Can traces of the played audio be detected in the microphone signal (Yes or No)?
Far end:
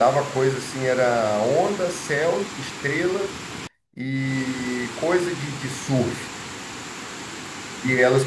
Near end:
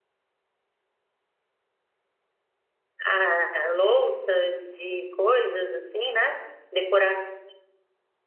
No